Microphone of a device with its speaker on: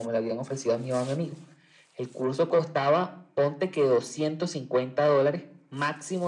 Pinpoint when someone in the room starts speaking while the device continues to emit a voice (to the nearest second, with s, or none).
none